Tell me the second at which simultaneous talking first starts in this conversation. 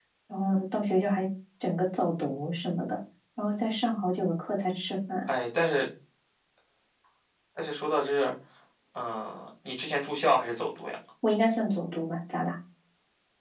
none

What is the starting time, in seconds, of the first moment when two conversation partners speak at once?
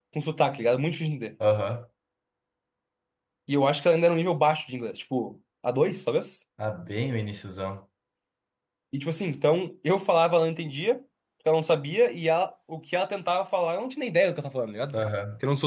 none

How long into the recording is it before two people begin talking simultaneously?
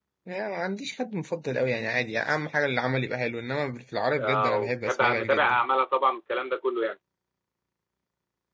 4.2 s

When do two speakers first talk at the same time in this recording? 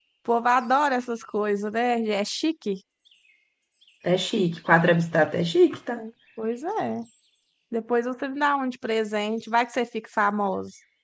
none

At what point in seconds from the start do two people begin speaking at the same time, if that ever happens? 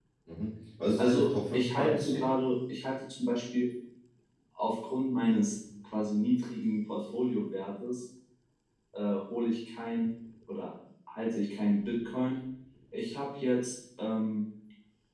1.0 s

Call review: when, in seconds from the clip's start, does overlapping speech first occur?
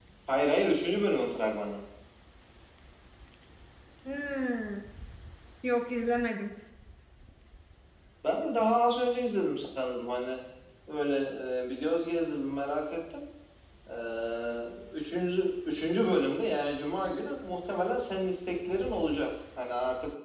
none

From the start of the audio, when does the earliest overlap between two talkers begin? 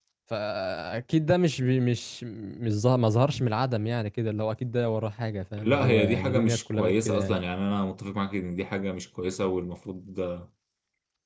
5.6 s

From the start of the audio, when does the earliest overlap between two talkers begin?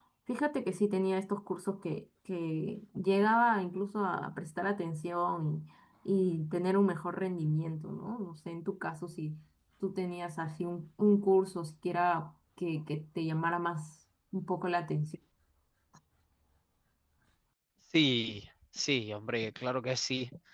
none

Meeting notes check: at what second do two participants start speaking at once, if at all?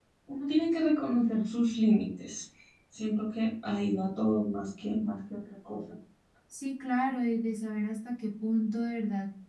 none

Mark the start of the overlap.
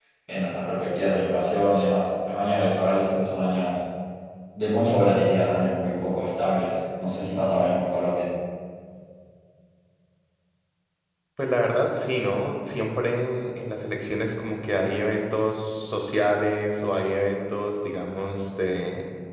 none

